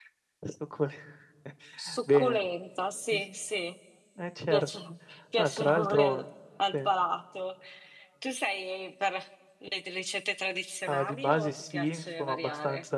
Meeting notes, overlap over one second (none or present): present